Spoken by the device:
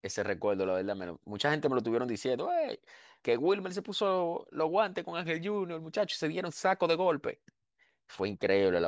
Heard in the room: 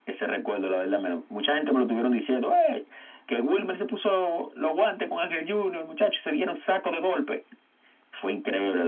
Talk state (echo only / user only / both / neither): echo only